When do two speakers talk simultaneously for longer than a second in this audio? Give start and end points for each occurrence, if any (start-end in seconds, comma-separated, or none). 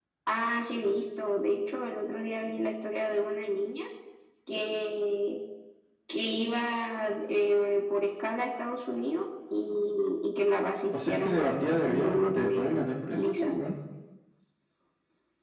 11.1-12.7